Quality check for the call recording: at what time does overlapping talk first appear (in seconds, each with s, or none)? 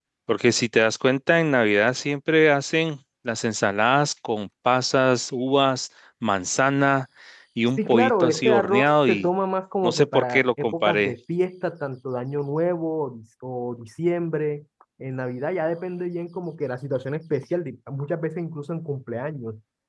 7.8 s